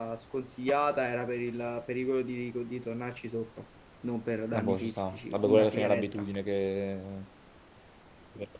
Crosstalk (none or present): present